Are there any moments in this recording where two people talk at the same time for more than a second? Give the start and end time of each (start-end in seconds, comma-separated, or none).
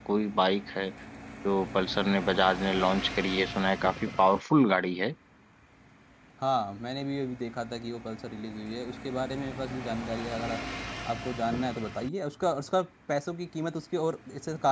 none